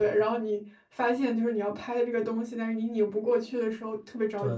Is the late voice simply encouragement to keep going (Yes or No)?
No